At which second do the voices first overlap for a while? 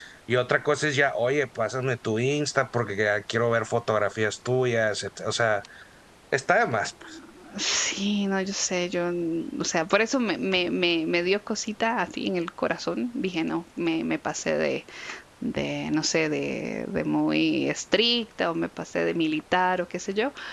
none

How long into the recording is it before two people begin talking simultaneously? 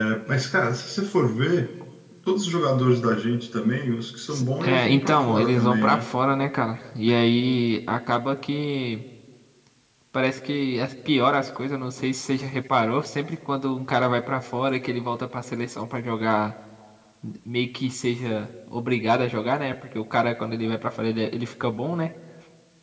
4.3 s

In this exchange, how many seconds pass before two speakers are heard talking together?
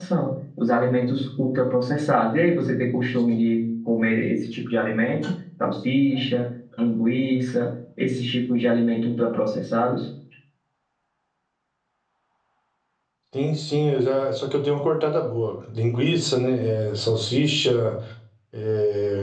none

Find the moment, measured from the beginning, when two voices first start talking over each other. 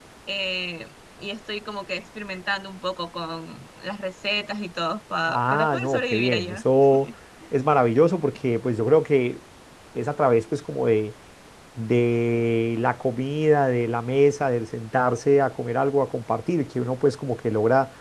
5.3 s

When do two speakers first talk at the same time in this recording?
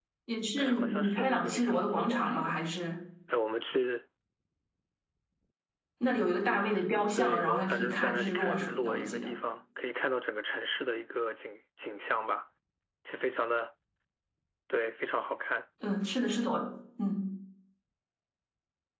0.6 s

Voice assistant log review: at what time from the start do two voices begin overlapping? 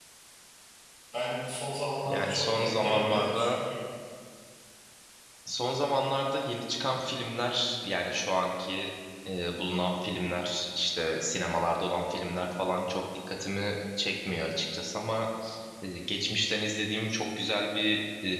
2.0 s

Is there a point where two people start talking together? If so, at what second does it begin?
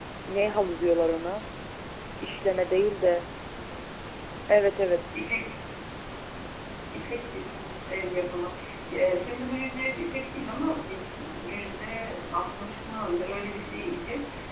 none

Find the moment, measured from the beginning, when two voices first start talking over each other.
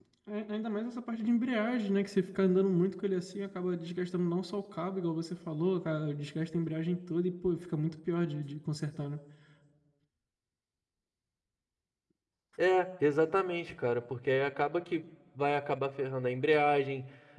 none

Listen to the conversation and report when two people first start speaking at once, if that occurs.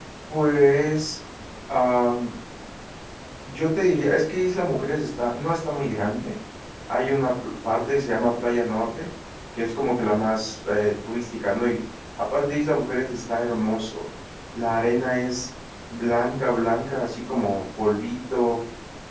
none

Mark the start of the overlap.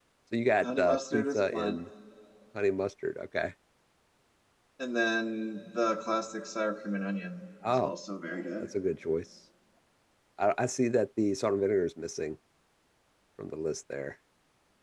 0.6 s

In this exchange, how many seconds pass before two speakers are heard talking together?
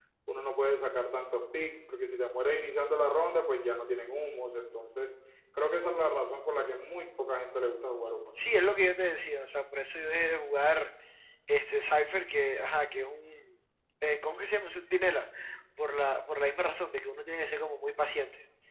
none

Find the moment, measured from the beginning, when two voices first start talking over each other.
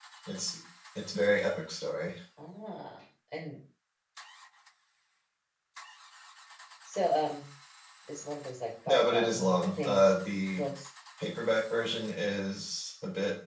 8.9 s

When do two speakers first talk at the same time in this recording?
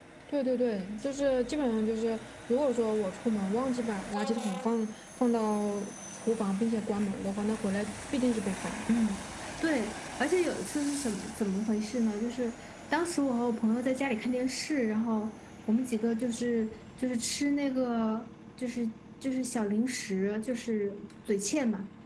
none

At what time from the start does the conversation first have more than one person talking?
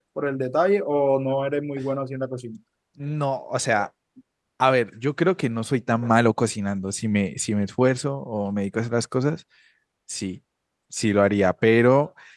none

